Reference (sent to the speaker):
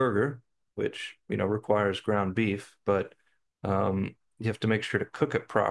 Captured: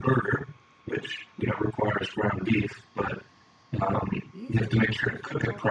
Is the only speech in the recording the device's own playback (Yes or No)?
No